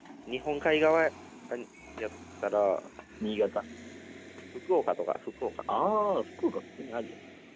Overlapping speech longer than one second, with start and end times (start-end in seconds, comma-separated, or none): none